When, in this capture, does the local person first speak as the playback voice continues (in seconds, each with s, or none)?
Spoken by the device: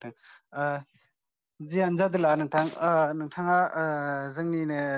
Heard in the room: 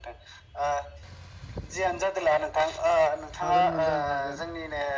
3.4 s